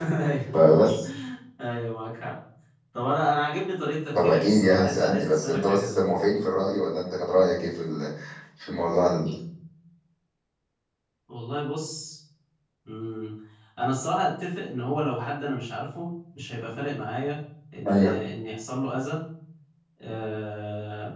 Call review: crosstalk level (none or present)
present